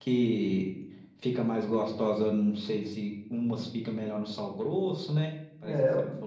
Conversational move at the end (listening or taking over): taking over